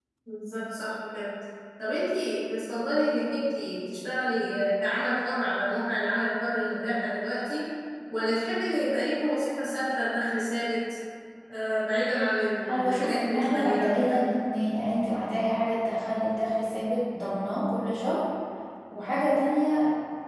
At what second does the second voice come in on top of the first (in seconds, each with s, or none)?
12.6 s